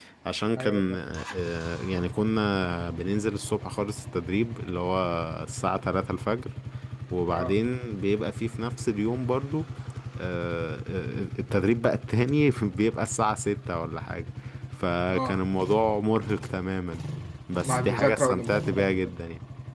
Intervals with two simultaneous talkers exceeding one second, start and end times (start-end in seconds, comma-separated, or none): 17.6-19.0